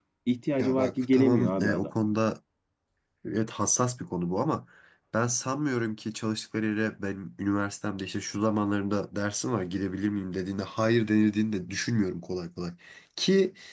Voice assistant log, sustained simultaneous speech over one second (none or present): present